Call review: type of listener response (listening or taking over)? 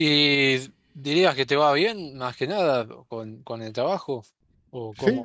taking over